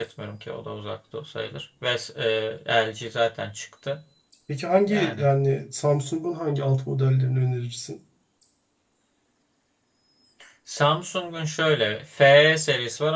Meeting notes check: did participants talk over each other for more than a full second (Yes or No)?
No